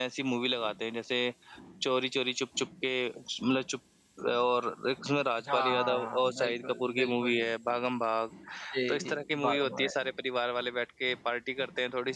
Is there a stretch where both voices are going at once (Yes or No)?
Yes